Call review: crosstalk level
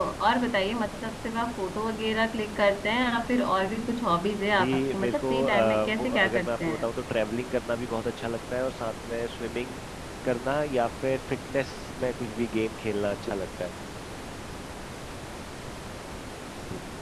present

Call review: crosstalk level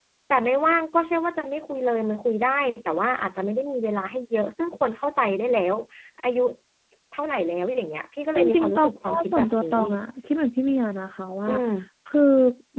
present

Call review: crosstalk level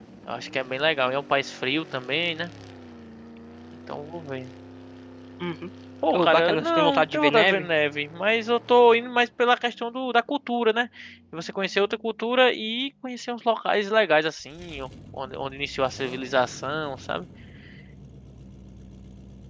present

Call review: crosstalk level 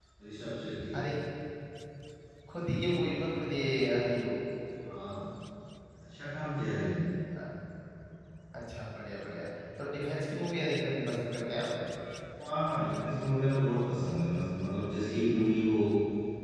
none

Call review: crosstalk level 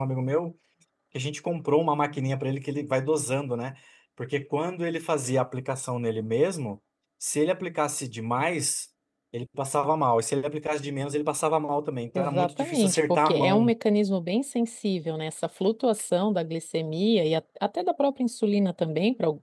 present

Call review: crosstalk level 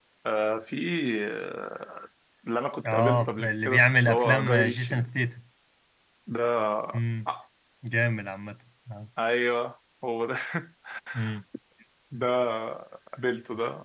present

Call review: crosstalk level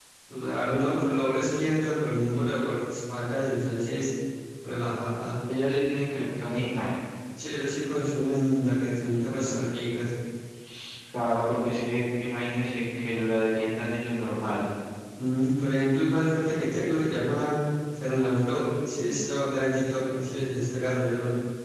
none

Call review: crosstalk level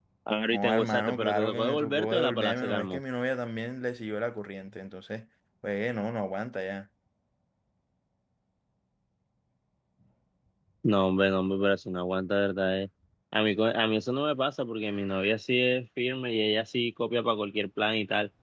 present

